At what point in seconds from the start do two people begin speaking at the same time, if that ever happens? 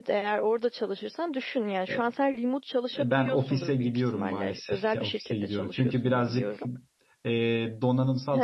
2.9 s

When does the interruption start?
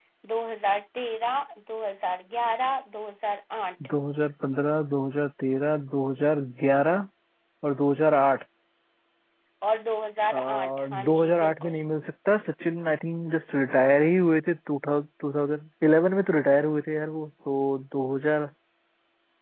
10.3 s

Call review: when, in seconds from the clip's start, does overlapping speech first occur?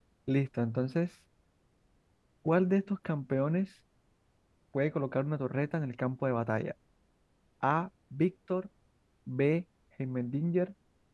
none

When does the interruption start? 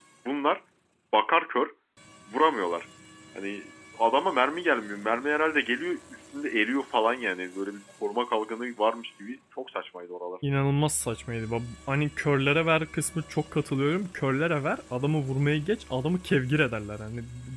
none

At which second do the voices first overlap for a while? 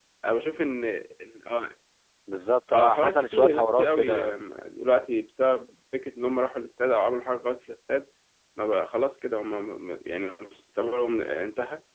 2.7 s

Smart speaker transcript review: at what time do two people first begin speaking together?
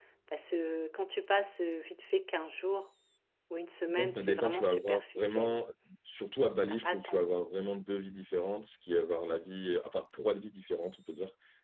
3.9 s

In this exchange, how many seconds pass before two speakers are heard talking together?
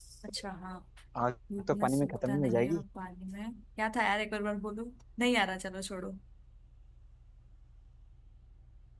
1.6 s

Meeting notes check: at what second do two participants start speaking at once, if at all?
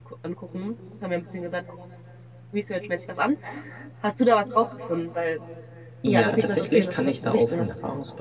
6.1 s

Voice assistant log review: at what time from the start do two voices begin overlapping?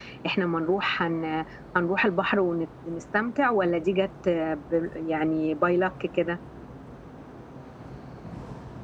none

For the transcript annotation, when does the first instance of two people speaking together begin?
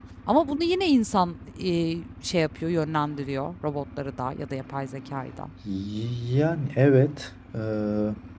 none

